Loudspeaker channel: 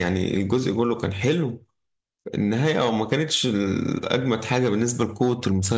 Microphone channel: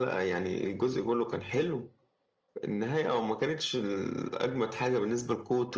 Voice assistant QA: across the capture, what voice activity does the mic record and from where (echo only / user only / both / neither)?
echo only